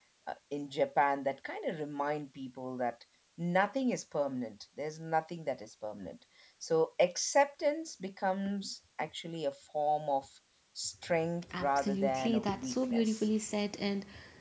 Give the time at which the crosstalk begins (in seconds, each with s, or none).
11.5 s